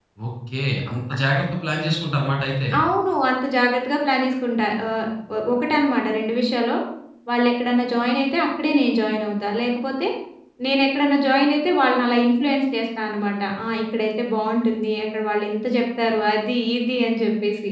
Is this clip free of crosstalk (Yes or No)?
Yes